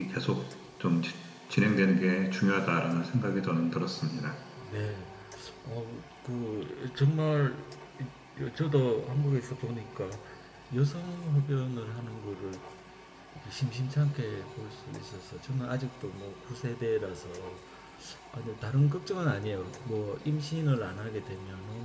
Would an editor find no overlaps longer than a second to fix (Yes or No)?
Yes